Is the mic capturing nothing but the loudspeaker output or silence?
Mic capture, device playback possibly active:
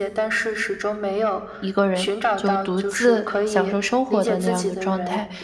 No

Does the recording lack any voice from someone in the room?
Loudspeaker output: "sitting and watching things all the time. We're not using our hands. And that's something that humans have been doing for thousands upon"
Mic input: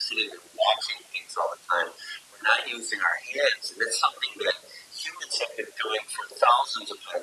Yes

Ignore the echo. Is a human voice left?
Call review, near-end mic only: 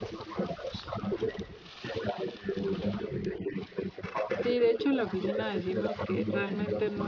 Yes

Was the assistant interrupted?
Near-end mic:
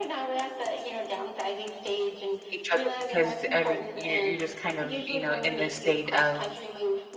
Yes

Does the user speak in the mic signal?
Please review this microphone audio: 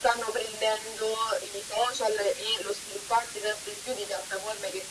No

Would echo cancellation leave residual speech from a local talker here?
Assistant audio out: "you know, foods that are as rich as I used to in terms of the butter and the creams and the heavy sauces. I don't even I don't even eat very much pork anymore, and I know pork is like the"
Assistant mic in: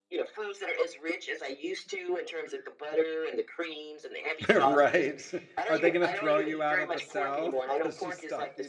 Yes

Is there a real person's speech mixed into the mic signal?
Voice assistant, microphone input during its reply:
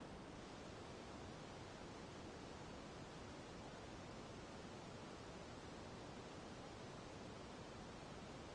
No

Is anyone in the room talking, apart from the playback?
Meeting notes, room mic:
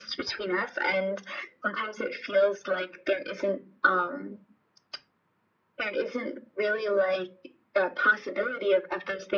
No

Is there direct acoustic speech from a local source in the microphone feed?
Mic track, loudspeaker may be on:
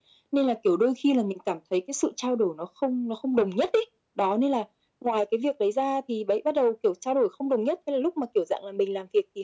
No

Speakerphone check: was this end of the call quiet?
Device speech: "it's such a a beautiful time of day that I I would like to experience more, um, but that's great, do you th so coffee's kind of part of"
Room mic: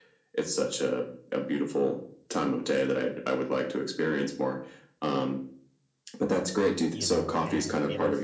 No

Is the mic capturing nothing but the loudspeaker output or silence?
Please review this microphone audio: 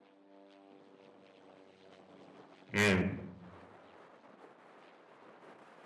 No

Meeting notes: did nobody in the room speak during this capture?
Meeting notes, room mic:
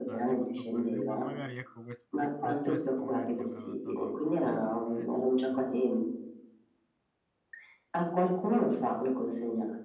No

